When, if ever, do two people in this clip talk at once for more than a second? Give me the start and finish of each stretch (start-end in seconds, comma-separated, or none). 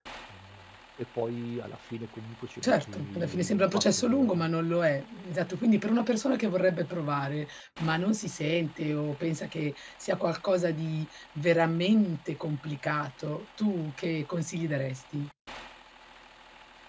2.6-4.4